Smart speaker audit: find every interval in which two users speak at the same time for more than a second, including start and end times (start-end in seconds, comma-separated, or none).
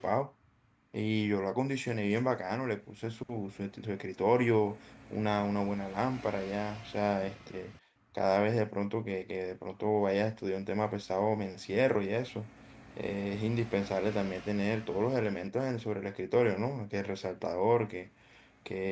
none